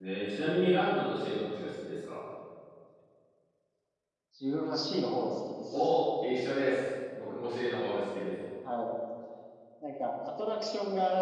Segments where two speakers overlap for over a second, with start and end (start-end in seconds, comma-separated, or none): none